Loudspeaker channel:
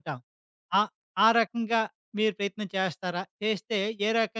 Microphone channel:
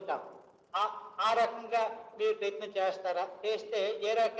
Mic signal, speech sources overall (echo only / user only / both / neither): echo only